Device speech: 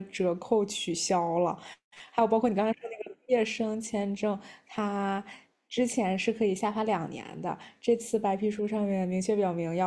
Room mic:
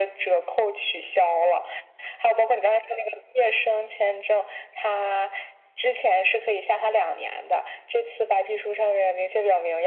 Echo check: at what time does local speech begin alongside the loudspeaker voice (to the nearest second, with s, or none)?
none